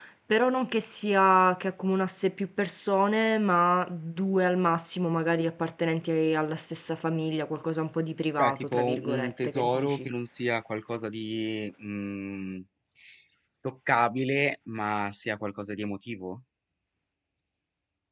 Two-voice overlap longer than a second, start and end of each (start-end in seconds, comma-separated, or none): 8.4-10.1